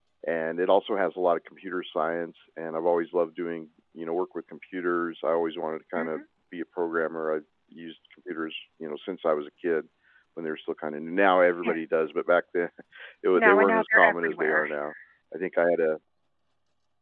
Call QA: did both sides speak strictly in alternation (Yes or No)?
No